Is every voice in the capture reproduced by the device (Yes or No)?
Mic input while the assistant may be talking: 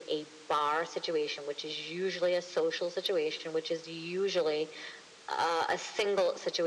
Yes